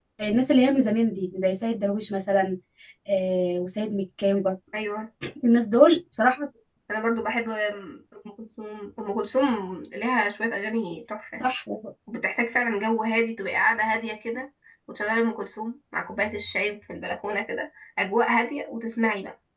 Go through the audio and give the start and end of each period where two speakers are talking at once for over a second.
none

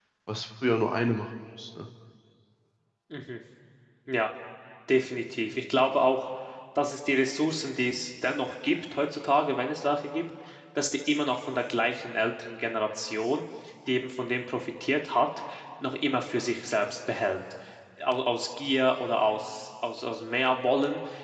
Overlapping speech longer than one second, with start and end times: none

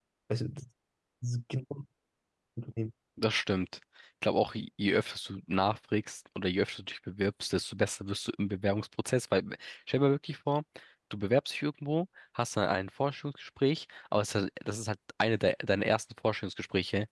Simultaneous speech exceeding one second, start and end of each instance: none

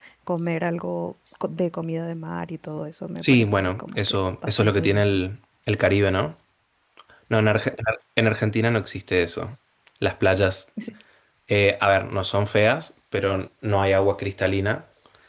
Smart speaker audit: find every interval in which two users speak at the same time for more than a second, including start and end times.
3.2-5.2

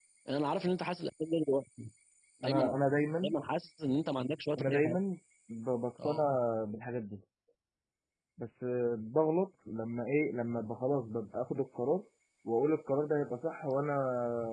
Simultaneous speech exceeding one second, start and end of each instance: none

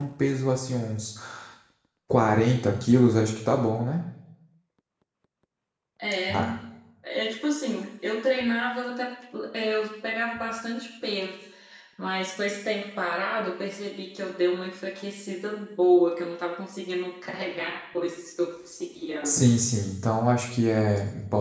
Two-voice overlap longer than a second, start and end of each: none

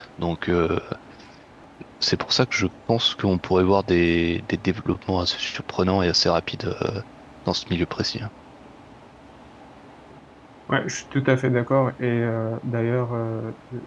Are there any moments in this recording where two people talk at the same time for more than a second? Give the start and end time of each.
none

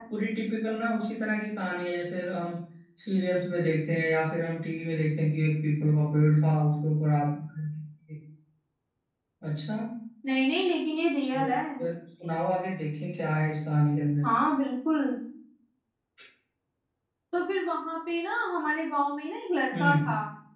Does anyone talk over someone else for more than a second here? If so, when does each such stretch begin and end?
none

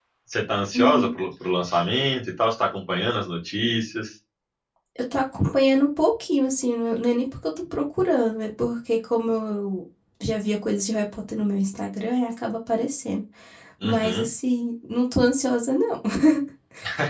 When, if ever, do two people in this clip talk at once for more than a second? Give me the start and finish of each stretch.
none

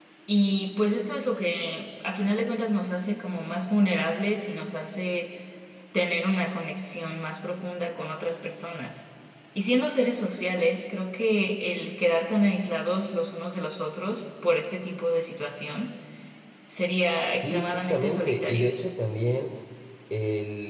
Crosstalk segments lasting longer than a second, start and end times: 17.4-18.7

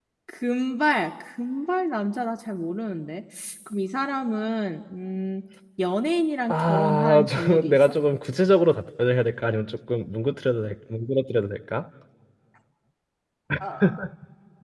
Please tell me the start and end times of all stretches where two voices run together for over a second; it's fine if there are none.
6.5-7.9

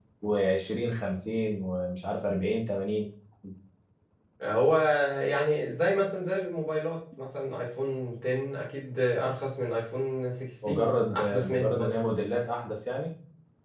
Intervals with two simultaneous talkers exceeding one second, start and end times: 10.7-12.0

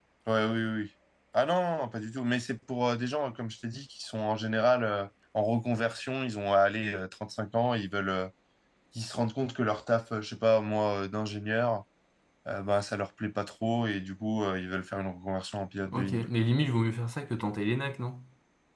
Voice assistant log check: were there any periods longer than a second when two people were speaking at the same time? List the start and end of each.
none

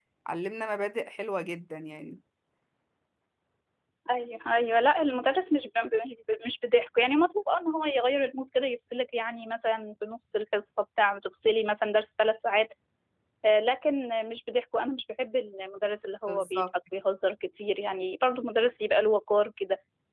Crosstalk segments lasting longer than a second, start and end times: none

